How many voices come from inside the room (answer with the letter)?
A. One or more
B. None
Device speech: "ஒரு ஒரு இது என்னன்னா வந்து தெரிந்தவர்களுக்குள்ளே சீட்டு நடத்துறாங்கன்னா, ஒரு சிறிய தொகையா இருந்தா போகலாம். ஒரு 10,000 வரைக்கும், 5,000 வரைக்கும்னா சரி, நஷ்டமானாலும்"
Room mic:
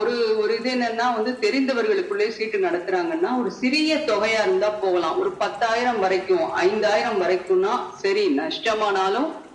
B